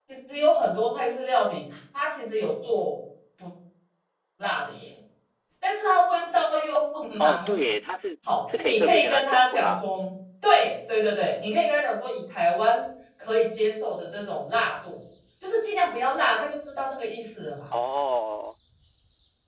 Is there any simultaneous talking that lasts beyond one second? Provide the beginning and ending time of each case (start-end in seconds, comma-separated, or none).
8.5-9.9